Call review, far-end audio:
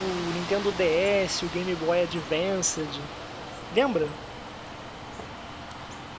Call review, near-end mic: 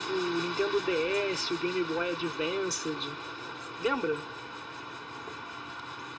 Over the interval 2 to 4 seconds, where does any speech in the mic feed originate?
echo only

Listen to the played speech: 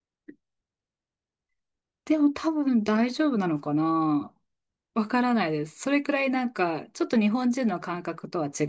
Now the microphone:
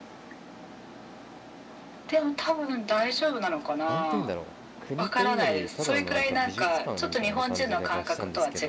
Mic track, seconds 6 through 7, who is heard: both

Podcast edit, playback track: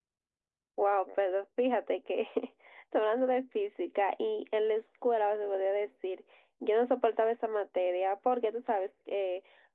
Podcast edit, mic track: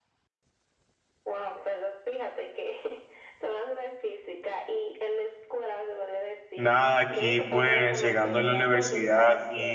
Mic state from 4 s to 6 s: echo only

